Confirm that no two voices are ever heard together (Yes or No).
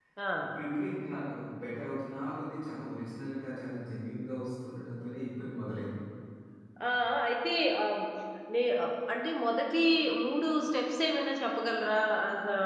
Yes